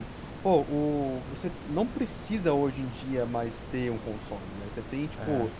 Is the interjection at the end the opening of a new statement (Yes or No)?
No